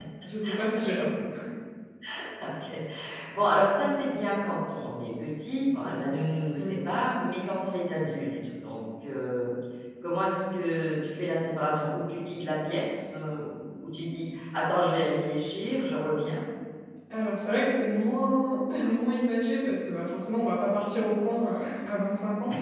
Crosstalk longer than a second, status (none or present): none